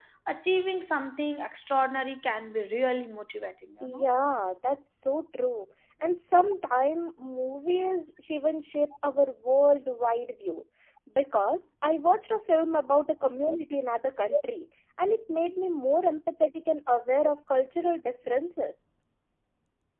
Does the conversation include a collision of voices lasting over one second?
No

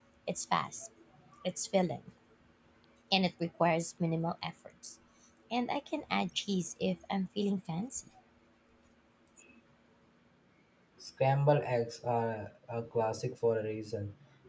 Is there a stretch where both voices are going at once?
No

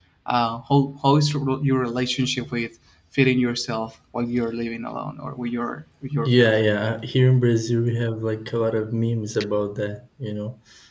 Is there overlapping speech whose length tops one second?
No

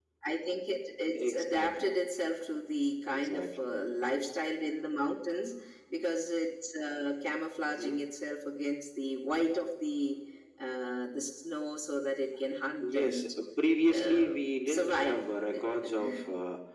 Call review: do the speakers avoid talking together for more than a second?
No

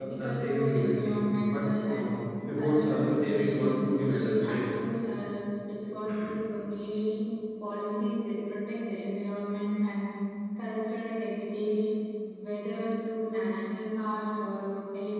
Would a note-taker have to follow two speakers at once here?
Yes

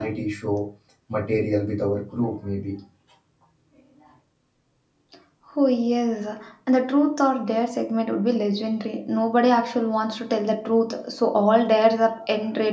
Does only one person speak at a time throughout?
Yes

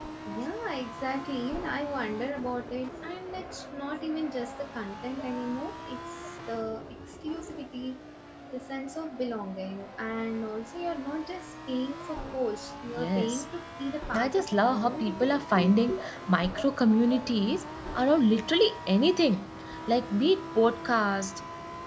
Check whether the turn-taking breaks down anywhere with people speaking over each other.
Yes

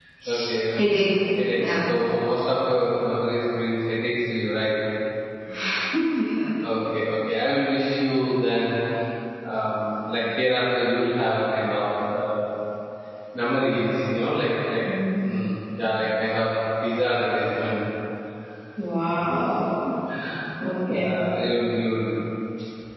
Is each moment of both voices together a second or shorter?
Yes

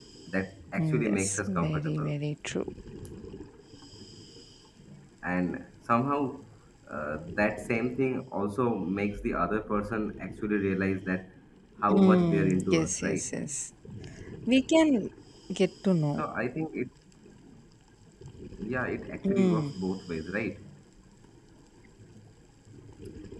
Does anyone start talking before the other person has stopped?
Yes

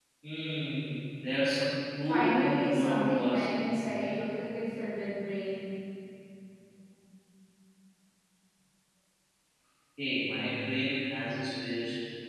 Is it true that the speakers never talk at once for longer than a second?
No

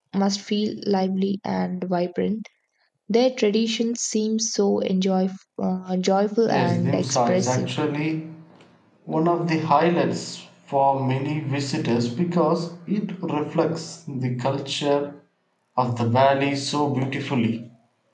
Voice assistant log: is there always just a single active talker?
No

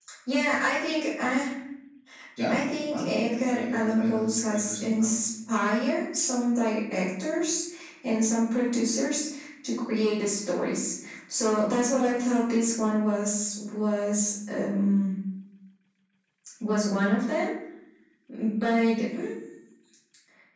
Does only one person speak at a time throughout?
No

